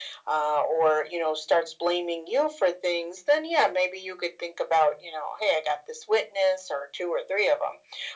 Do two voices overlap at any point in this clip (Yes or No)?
No